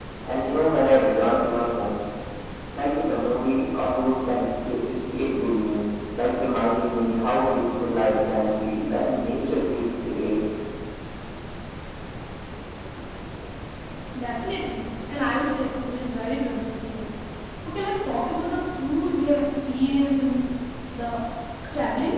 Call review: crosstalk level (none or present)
none